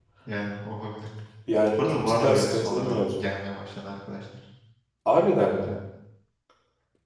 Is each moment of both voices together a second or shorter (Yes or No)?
No